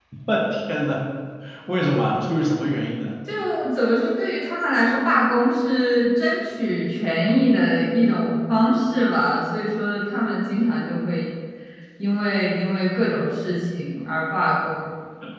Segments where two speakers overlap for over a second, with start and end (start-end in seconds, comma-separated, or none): none